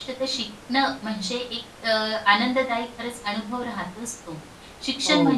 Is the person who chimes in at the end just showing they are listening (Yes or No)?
Yes